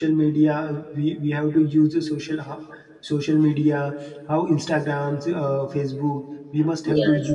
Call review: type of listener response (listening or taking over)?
listening